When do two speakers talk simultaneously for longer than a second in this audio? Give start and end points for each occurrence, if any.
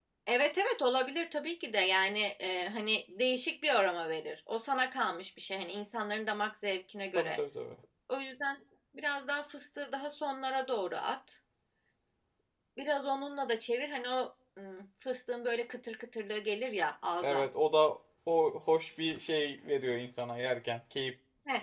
none

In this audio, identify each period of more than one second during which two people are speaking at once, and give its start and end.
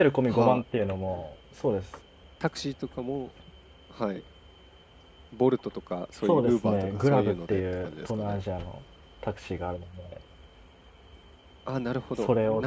6.2-8.4

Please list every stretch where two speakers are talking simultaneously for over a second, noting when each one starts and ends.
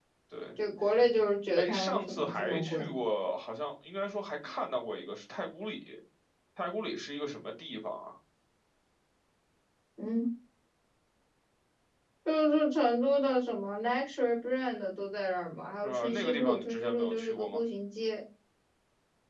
1.6-2.9, 15.8-17.6

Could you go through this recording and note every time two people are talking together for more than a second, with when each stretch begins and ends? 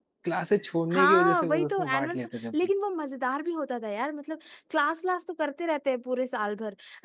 0.9-2.2

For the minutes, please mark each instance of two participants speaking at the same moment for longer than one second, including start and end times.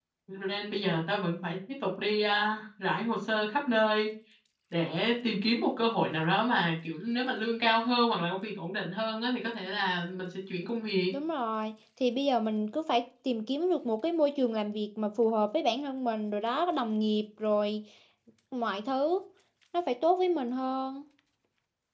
none

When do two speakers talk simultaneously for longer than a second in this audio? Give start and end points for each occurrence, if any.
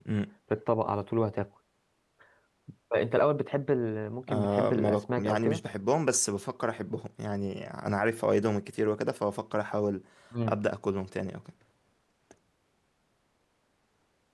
4.4-5.6

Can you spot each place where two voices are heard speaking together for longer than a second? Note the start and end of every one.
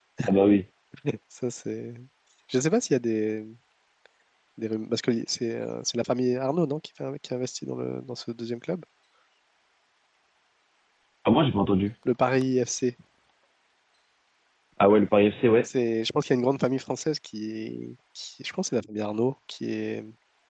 none

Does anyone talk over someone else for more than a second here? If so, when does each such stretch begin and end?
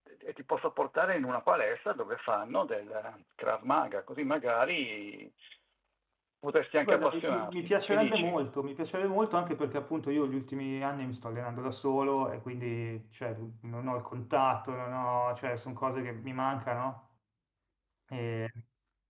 6.8-8.4

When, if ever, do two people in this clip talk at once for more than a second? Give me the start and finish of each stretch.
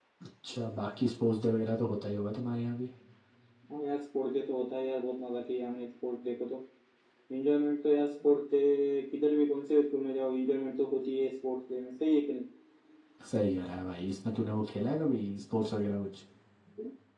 none

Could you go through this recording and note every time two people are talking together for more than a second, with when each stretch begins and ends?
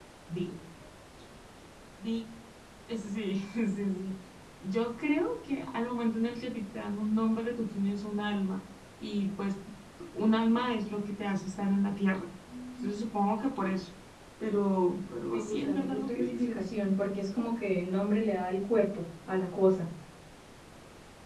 15.3-16.6

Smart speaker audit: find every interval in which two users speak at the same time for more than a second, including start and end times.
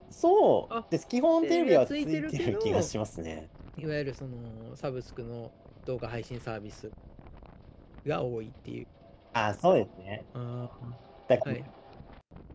1.4-2.9

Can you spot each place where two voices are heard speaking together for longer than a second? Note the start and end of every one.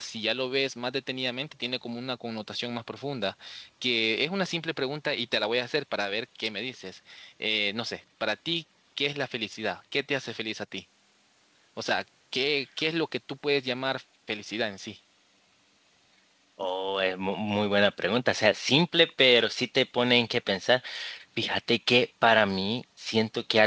none

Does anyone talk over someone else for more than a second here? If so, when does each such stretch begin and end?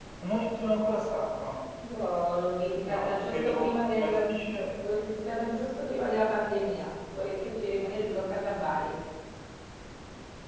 2.9-4.2

